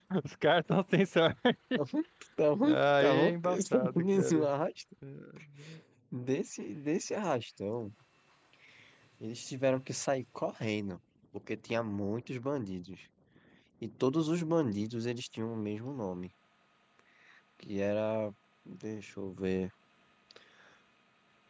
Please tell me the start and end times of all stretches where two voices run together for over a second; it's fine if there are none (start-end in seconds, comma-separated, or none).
2.6-4.5